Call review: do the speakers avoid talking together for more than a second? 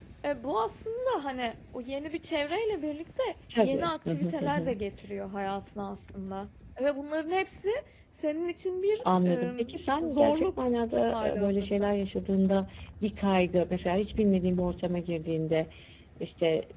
No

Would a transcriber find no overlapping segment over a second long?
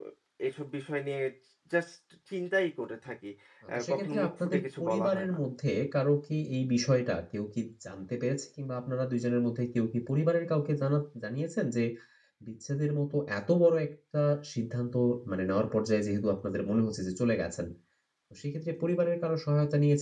No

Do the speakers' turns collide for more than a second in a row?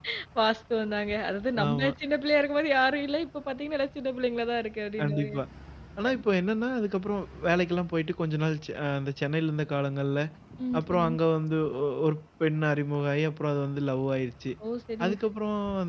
No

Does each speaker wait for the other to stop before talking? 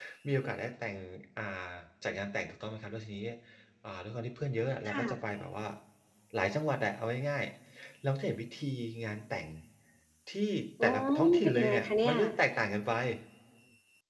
No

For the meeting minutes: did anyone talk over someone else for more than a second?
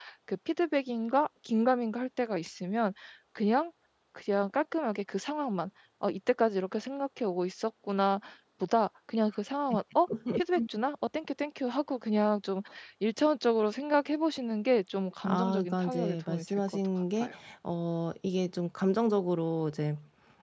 Yes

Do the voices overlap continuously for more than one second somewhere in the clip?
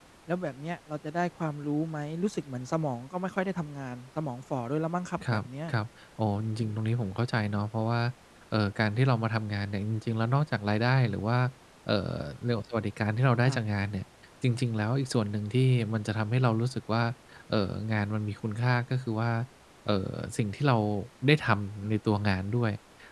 No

